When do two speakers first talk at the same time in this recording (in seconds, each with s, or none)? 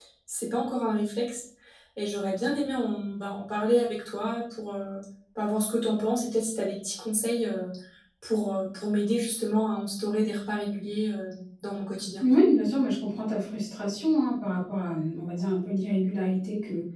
none